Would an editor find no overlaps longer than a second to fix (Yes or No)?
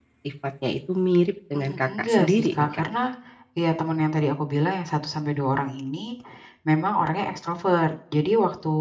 No